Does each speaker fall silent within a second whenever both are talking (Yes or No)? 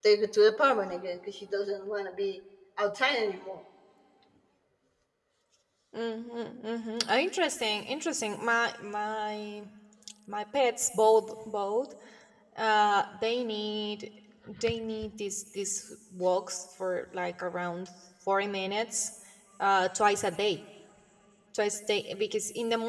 Yes